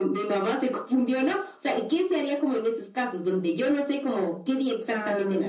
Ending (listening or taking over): taking over